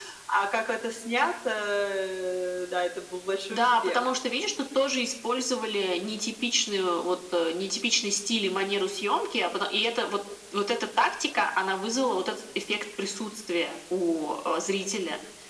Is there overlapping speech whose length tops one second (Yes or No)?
No